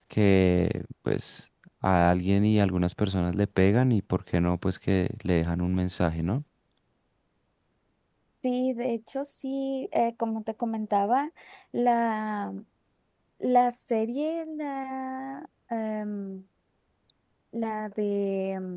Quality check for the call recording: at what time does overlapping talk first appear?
none

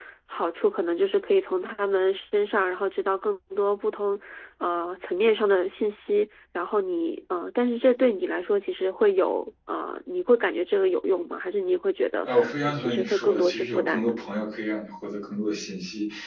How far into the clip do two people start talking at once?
12.2 s

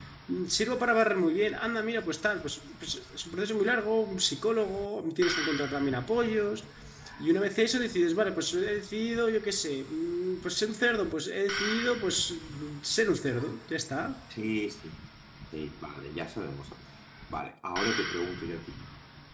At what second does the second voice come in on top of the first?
none

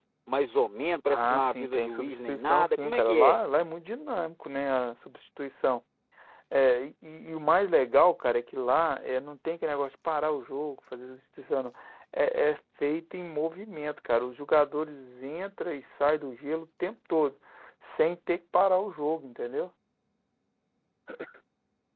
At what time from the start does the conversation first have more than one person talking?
1.1 s

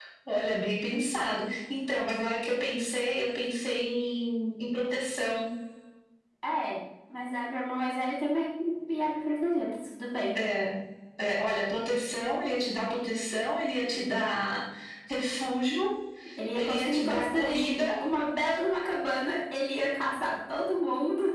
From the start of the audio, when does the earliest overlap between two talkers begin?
16.6 s

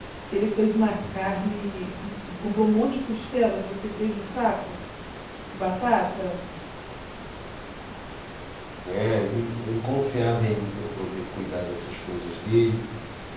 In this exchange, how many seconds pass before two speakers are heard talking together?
none

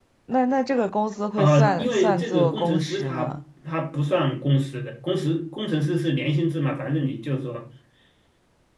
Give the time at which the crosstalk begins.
1.4 s

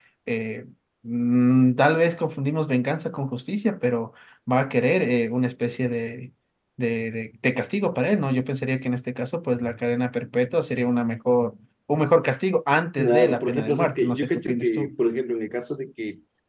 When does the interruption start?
13.0 s

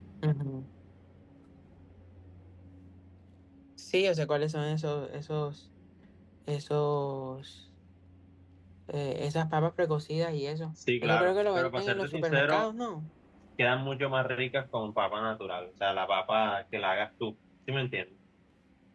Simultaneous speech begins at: 11.0 s

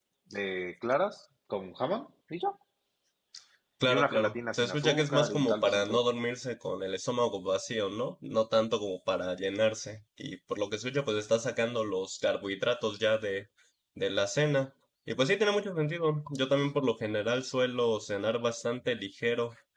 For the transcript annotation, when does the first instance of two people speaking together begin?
3.9 s

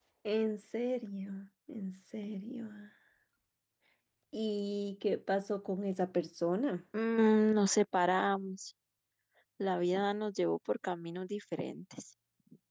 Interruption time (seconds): none

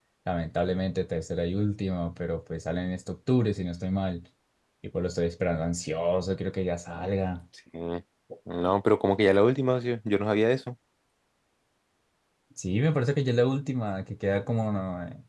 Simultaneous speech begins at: none

